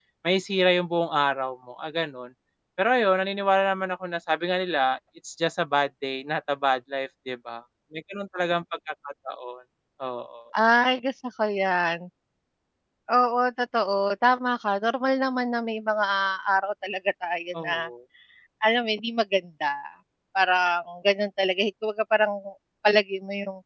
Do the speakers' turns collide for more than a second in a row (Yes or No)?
No